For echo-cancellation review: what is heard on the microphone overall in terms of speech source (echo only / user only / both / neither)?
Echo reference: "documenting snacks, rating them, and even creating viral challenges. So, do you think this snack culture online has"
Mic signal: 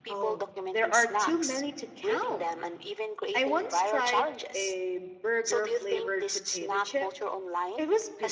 both